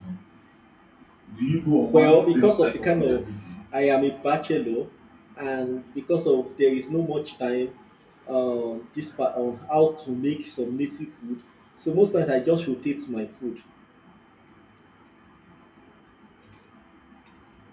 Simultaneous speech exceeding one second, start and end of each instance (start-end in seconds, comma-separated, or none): 1.9-3.2